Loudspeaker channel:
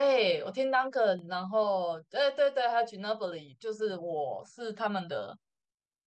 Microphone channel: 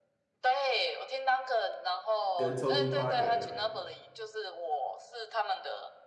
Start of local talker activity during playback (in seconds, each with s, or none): 2.3 s